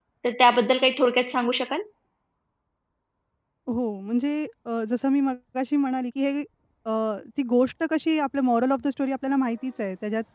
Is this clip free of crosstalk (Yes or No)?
Yes